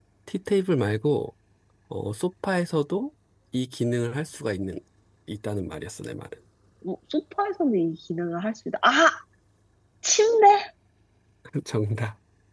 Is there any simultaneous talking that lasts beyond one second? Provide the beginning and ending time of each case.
none

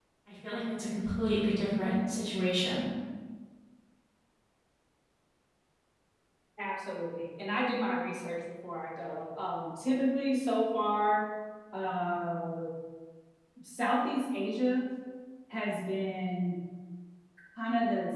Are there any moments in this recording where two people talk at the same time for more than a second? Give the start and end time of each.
none

